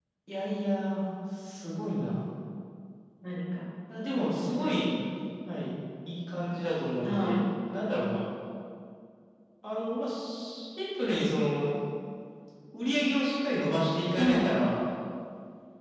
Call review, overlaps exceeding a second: none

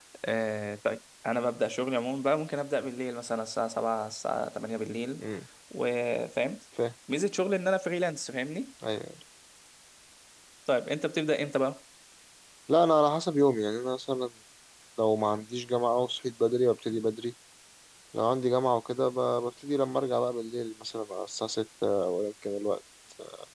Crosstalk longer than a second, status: none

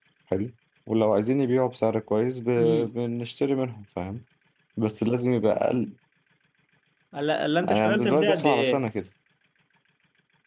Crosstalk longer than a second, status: present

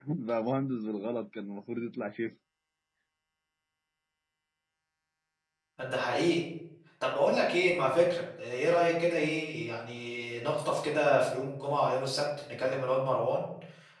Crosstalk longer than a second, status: none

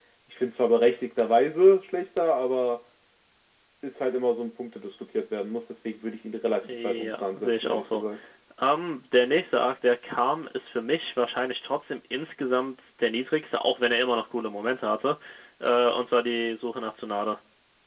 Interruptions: present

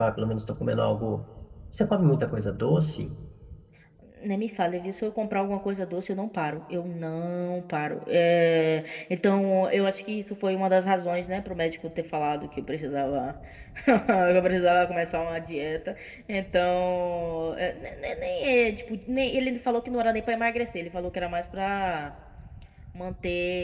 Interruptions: none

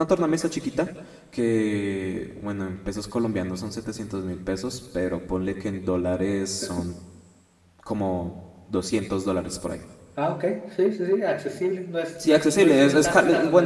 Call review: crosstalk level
present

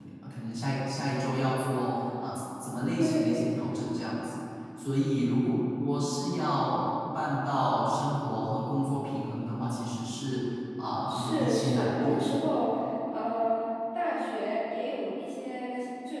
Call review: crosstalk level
present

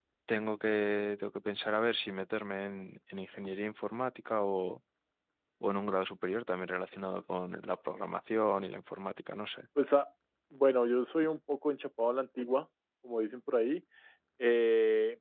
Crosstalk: none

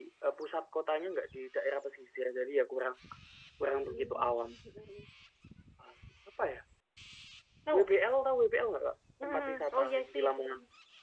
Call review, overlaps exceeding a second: present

